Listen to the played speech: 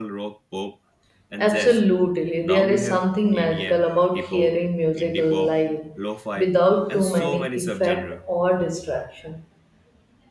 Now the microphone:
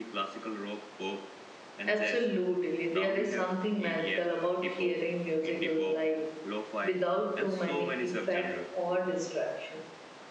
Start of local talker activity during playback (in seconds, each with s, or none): none